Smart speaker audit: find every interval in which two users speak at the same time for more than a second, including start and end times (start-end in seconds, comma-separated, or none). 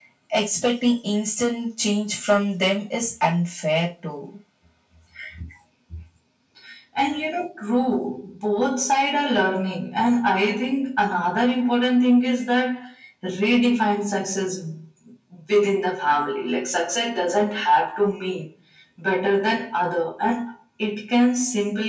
none